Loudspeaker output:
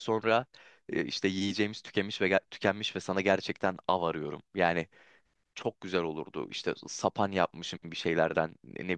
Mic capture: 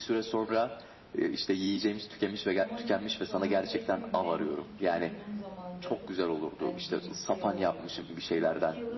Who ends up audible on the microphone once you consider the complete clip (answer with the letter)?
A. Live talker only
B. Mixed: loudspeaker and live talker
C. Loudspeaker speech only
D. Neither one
B